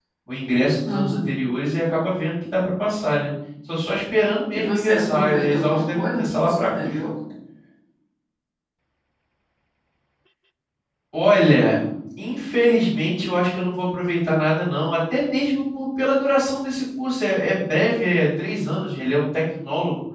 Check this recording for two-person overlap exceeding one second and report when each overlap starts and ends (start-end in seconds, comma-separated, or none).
4.6-7.0